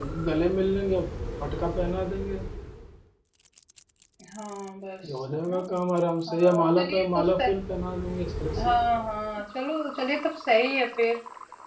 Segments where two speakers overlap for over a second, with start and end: 6.3-7.5

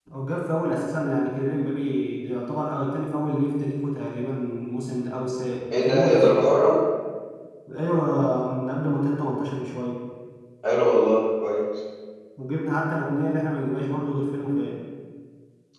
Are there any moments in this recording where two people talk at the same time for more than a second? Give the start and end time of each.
none

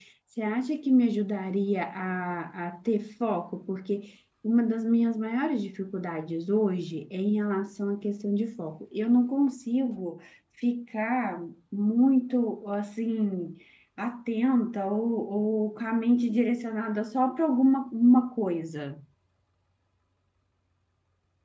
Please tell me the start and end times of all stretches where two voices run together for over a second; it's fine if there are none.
none

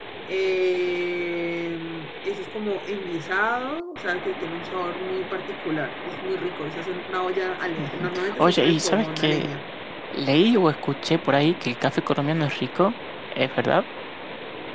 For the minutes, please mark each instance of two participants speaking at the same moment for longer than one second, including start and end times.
7.8-9.5

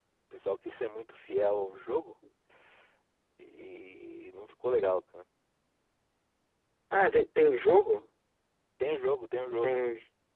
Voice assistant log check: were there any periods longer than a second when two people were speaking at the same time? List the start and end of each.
none

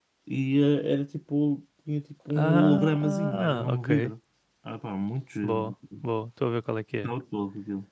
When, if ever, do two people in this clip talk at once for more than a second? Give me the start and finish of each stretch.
2.3-4.1

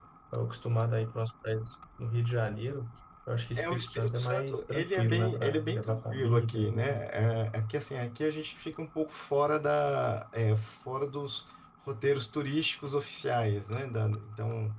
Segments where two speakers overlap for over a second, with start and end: 3.6-7.0

